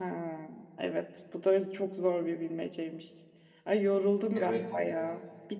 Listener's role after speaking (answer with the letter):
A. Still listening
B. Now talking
A